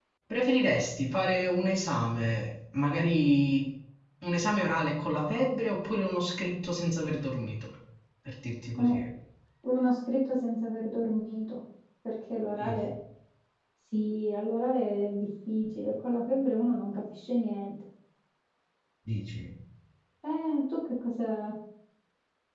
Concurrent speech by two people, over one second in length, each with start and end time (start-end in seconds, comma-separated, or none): none